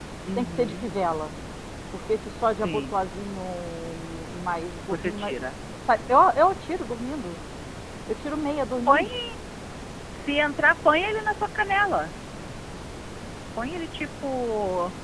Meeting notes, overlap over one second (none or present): none